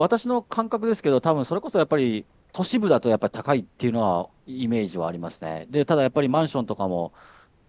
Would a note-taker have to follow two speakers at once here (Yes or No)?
No